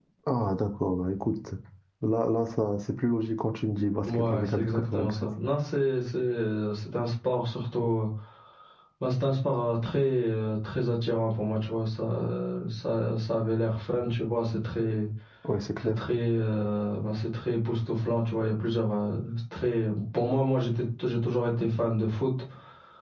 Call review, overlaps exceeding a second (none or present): present